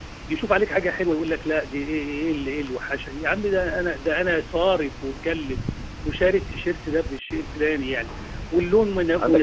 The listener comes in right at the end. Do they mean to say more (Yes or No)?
Yes